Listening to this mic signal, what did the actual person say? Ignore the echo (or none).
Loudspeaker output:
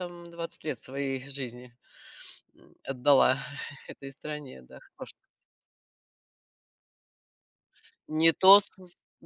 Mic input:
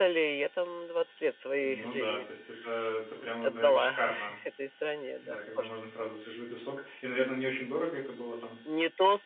Ну да, то есть это это прям вот, наверно, шикарно, да, когда можно сразу свежевыжатый сок. И, наверно, не очень дорого это было там?